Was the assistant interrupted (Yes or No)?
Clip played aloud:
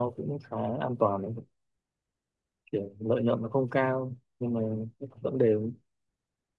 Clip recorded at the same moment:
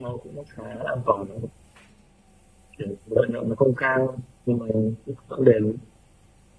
No